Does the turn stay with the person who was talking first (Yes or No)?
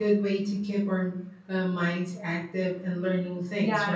No